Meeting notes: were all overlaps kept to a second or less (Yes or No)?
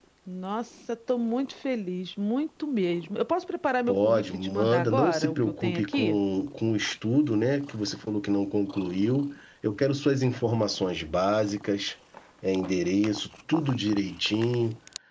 No